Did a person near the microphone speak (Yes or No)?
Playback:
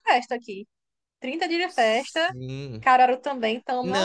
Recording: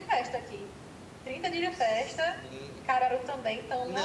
No